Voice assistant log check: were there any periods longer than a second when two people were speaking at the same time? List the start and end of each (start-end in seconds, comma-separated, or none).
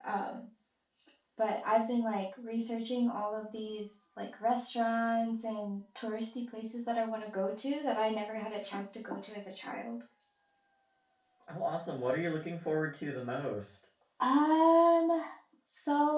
none